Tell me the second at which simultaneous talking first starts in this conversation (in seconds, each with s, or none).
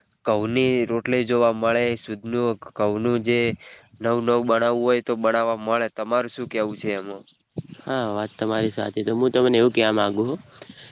none